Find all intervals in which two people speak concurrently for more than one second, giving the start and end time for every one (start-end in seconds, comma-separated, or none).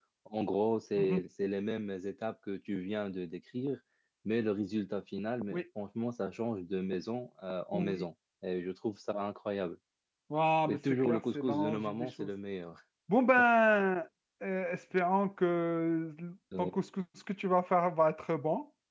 10.7-12.3